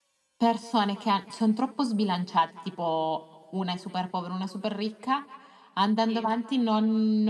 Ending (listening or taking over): listening